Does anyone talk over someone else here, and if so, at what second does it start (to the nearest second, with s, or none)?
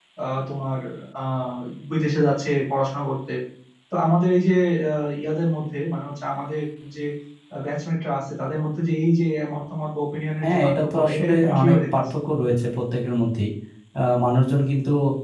10 s